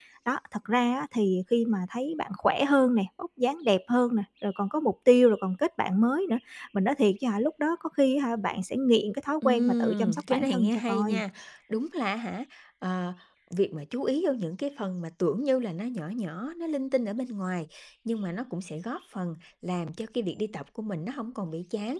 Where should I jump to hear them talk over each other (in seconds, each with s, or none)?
9.4 s